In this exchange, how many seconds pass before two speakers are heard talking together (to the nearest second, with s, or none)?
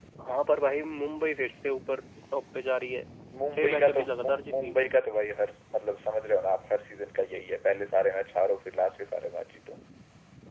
4 s